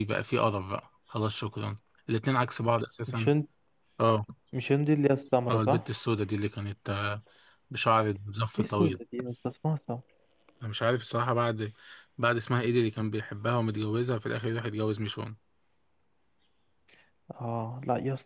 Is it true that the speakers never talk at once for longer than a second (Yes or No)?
Yes